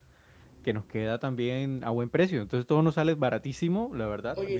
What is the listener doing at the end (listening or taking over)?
listening